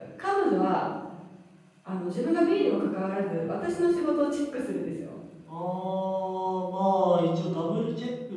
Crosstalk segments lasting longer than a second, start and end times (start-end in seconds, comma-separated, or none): none